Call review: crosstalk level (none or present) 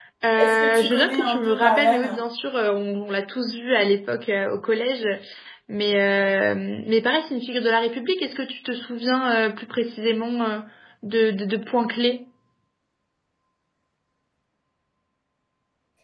present